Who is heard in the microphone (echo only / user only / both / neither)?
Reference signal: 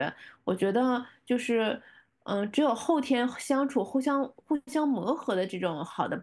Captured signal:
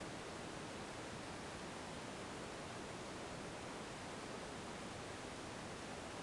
neither